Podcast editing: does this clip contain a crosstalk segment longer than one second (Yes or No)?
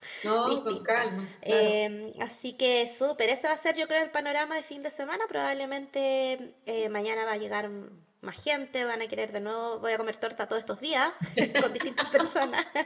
Yes